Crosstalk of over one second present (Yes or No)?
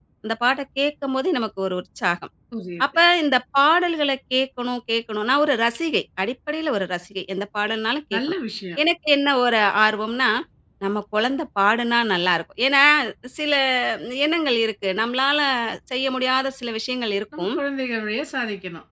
No